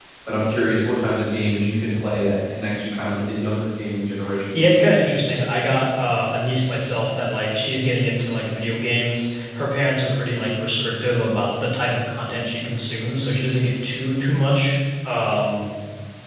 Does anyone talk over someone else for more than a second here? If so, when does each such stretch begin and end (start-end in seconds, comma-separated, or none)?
none